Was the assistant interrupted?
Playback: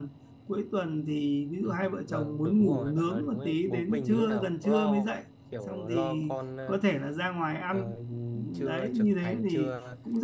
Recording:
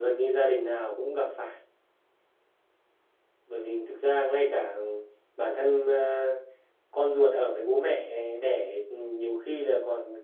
Yes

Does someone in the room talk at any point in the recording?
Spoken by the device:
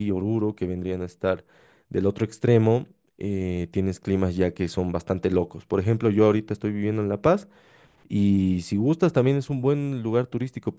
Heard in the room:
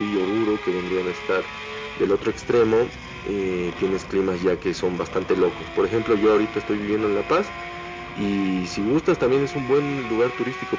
No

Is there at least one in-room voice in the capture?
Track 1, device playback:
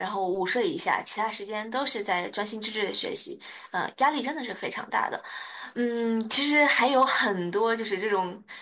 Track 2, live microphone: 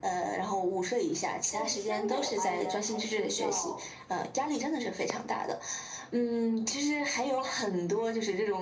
Yes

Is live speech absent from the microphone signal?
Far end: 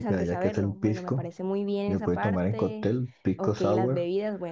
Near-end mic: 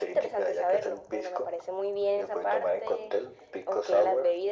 Yes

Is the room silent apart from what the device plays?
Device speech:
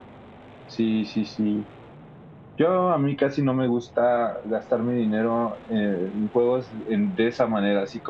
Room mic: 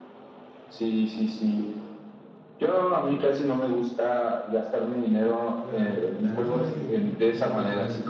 No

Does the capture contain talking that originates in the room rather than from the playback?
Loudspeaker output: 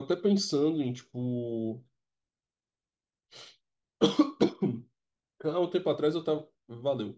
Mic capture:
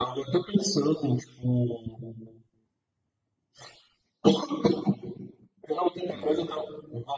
Yes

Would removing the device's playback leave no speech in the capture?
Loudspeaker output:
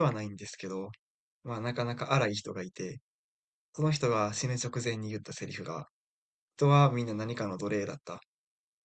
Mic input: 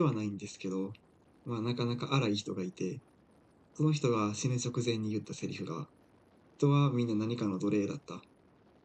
Yes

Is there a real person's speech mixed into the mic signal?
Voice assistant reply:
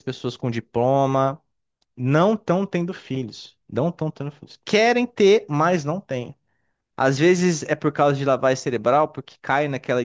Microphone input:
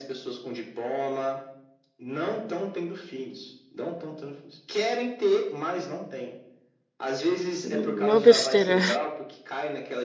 Yes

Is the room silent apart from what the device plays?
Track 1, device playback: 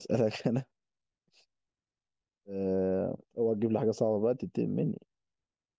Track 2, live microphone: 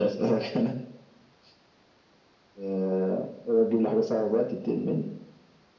Yes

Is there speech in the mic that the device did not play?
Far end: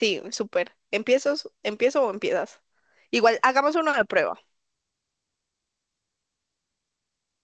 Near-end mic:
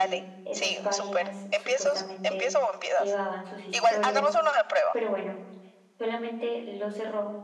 Yes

